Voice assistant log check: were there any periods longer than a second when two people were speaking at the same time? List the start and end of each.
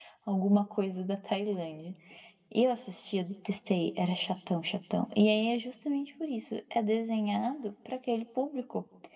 none

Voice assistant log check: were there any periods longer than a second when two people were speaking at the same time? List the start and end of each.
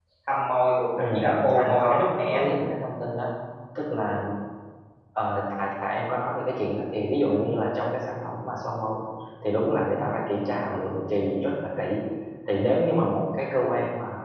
0.9-2.4

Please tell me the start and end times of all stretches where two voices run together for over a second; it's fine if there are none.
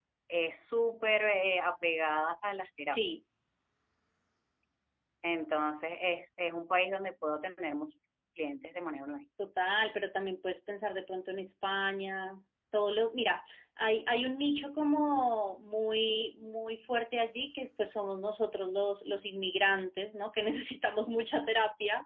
none

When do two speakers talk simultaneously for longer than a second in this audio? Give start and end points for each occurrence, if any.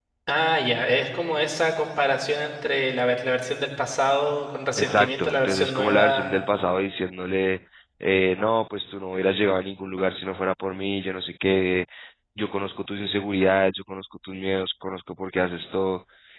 4.8-6.3

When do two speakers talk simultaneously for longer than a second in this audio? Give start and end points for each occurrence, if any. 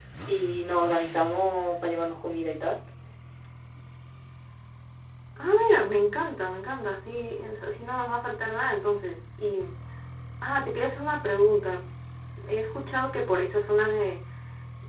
none

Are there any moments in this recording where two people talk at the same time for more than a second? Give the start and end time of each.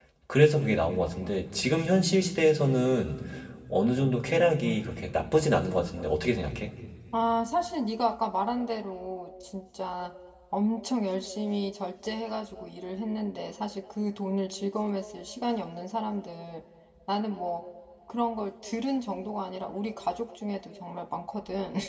none

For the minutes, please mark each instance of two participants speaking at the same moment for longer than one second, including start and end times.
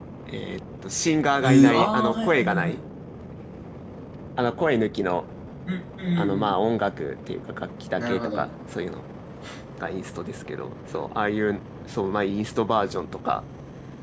1.4-2.8

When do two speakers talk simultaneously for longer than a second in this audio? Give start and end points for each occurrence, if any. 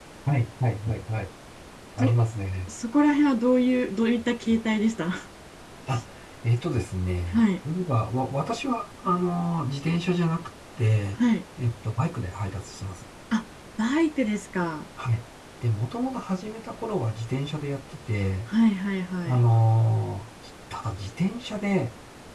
none

